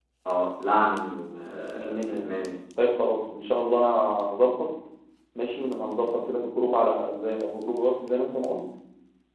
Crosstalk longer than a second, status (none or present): none